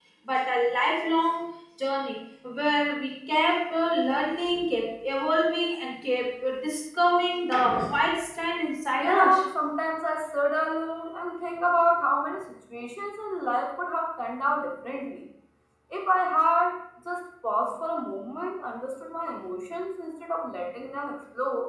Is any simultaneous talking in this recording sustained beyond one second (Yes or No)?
No